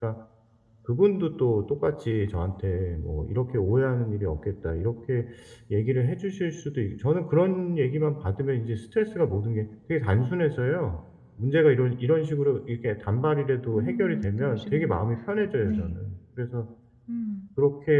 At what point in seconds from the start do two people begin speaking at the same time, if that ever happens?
13.7 s

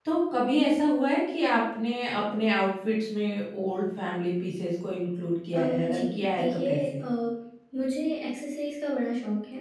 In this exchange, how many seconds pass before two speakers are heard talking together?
5.5 s

